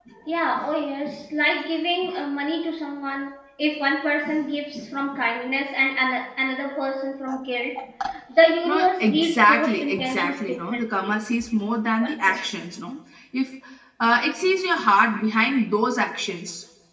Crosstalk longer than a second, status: present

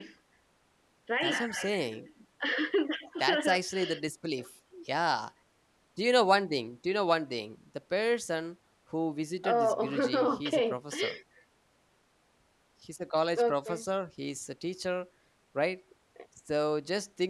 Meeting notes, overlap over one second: present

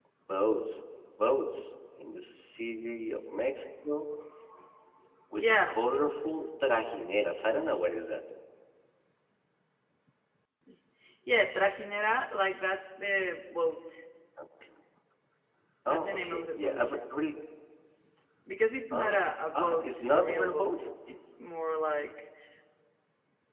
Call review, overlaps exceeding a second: present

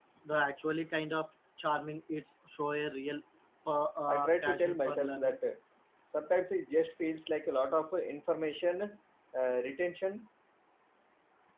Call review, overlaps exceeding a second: present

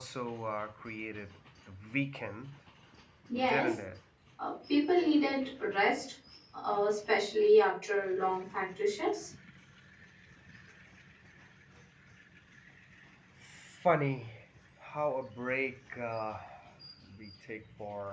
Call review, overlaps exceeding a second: none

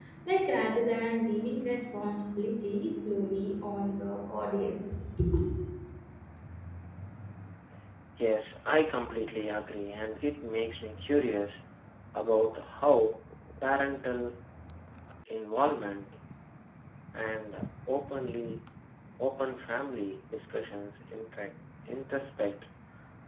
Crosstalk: none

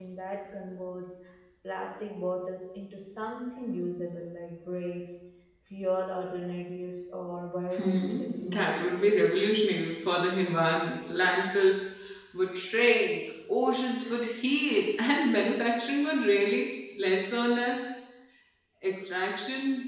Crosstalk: present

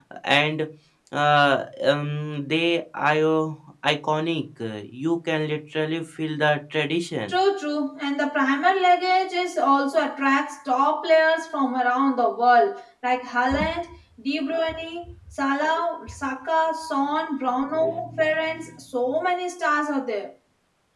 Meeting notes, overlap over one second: none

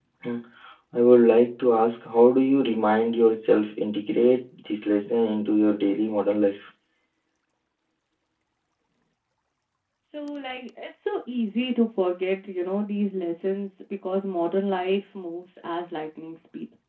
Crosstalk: none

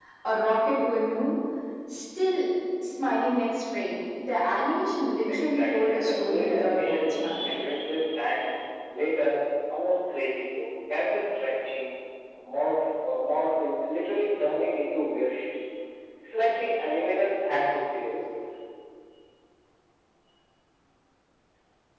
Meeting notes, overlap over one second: present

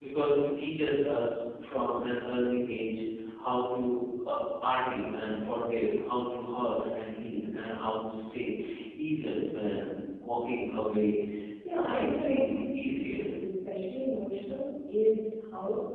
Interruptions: present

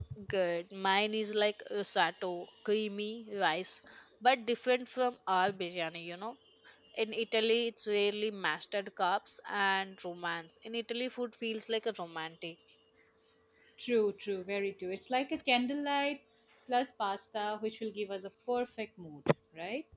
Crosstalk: none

